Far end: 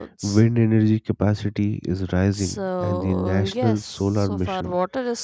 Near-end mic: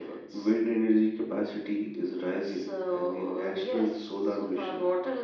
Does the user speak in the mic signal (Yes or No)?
No